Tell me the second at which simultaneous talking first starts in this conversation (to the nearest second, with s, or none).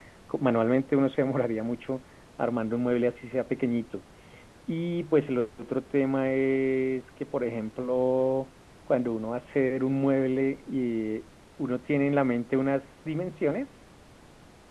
none